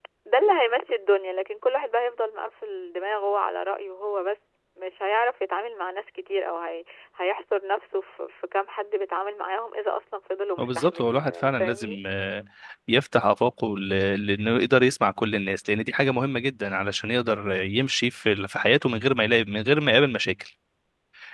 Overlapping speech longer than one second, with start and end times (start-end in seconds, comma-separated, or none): 10.6-12.0